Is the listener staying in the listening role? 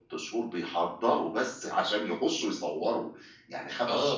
Yes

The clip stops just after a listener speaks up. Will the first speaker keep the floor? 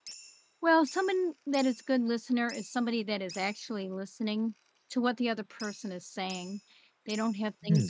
Yes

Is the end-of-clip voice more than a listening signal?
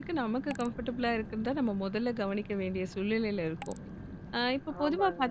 No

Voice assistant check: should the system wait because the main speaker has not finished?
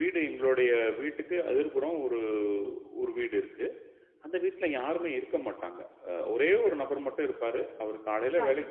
Yes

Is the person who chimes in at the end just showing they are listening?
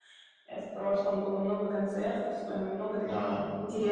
Yes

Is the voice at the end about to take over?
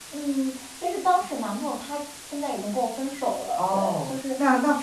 Yes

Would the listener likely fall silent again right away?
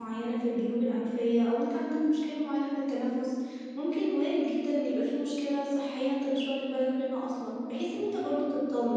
Yes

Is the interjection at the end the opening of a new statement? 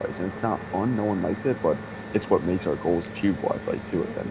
Yes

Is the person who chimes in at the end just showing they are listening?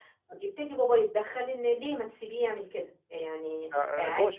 No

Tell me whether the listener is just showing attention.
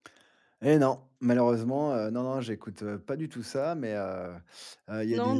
No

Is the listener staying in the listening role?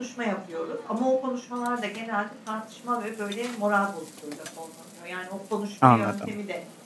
Yes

